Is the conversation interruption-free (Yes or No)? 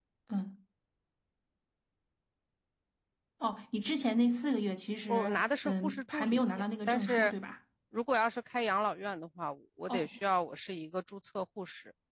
No